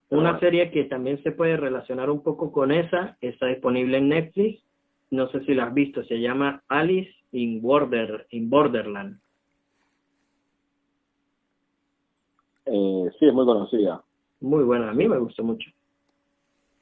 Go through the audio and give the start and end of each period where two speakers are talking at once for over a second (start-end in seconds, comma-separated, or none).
none